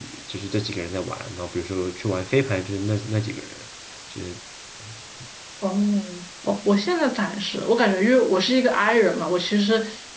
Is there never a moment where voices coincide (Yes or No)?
Yes